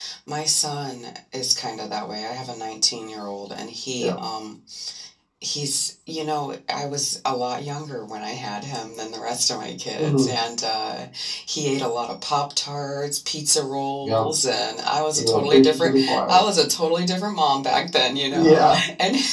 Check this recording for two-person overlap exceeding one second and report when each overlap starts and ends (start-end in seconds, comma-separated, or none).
15.2-16.4